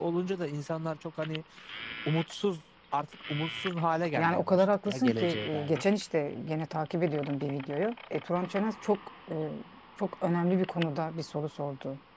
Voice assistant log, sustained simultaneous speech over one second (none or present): present